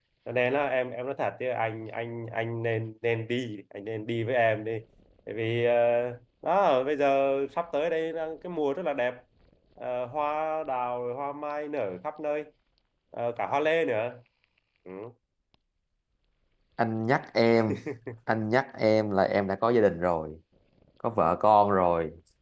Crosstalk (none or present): none